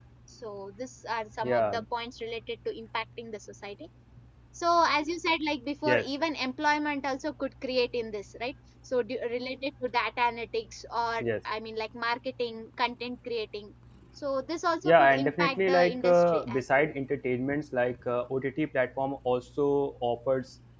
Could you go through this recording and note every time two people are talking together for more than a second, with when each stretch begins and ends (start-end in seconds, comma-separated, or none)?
14.8-16.9